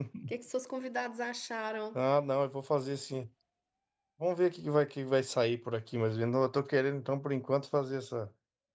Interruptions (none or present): none